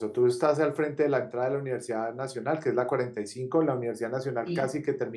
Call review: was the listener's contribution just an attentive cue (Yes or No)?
Yes